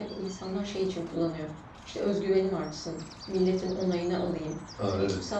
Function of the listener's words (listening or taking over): listening